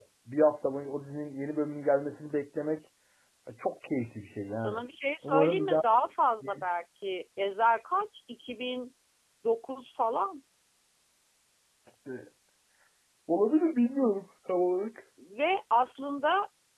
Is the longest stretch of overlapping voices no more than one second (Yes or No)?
Yes